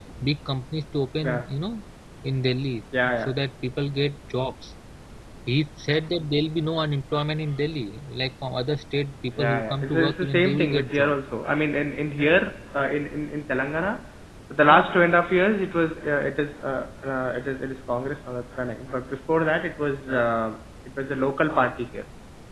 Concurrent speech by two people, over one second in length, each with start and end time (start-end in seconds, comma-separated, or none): 9.4-11.2